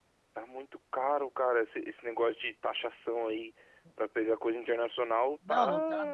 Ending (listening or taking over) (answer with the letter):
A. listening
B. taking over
B